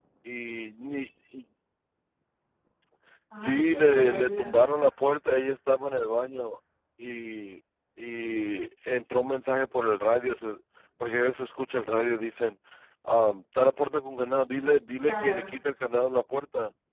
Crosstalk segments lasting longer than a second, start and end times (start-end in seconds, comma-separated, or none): 3.4-4.7